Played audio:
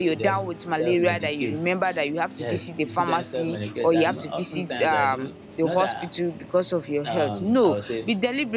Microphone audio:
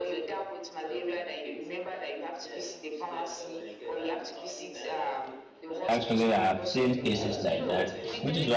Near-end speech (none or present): present